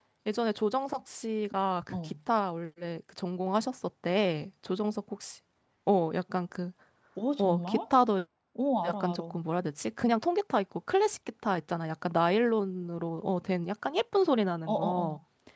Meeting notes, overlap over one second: none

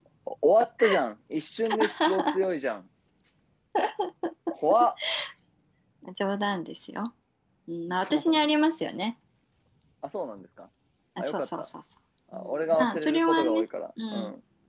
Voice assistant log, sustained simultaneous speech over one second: present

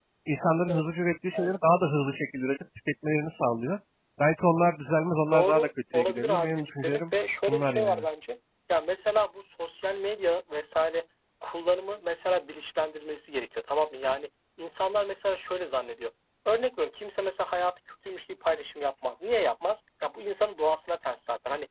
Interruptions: present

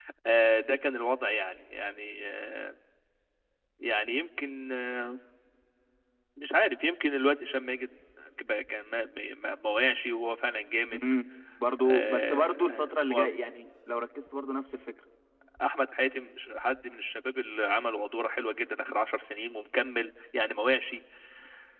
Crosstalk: present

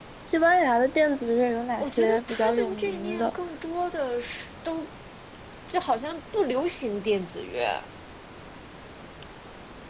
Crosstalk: present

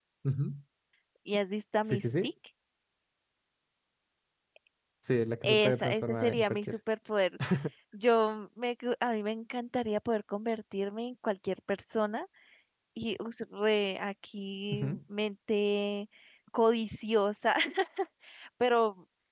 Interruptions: present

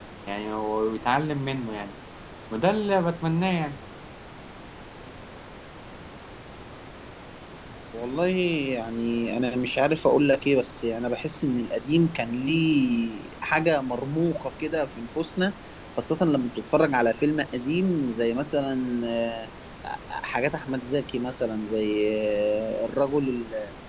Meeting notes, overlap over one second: none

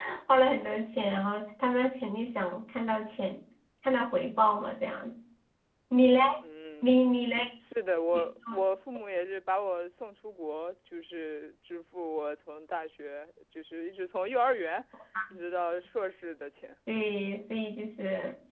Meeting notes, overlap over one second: none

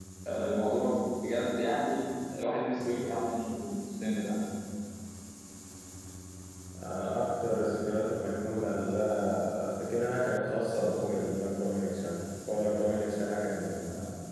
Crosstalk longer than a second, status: none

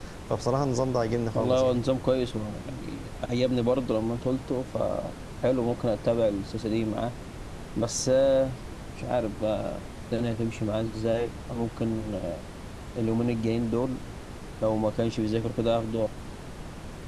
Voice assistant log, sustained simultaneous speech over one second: none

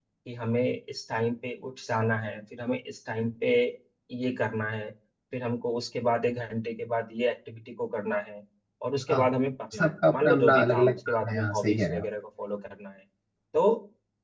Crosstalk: present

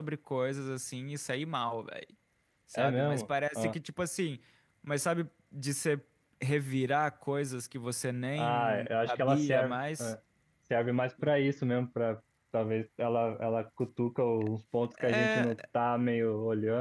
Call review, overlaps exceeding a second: present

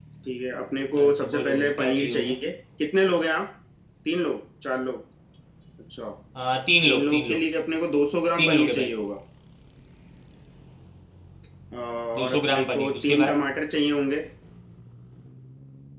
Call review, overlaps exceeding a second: present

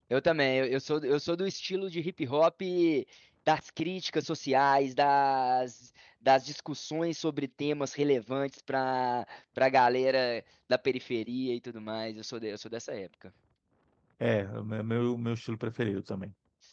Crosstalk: none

